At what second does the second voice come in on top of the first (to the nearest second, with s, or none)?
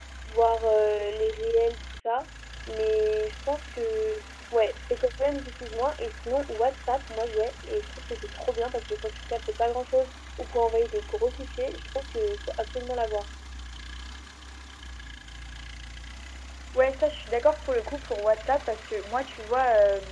none